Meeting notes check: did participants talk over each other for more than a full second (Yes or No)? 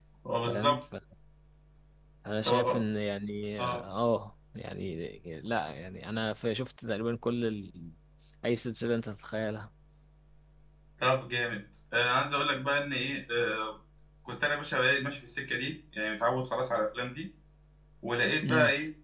No